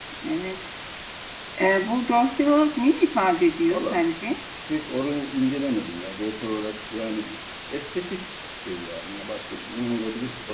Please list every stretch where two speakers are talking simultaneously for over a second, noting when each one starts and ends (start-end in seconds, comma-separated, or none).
none